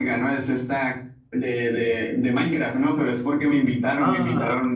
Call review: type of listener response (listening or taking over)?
listening